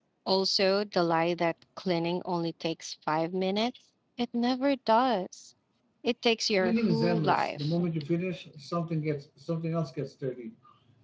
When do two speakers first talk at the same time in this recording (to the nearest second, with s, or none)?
7 s